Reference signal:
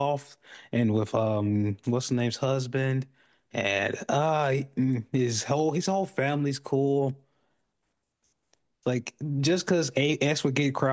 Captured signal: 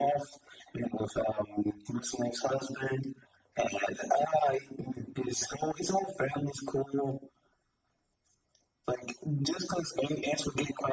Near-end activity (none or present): none